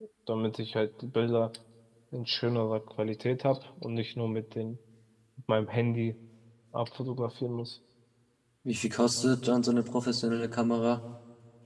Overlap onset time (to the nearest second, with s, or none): none